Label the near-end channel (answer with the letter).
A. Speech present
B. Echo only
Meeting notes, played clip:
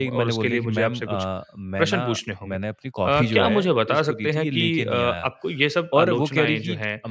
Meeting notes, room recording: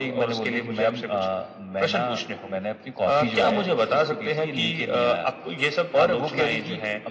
B